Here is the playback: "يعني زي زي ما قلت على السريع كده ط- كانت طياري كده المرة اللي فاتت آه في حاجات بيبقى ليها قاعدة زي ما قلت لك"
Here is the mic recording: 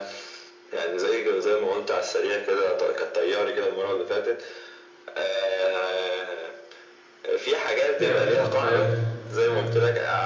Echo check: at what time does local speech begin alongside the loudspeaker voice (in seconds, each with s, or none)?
8.0 s